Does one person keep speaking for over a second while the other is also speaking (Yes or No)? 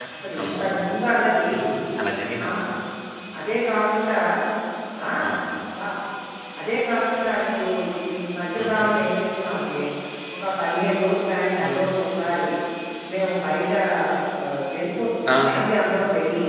No